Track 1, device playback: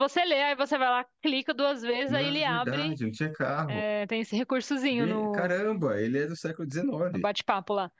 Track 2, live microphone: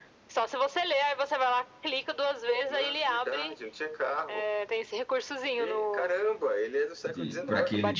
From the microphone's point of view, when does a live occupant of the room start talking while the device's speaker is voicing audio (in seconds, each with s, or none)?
7.0 s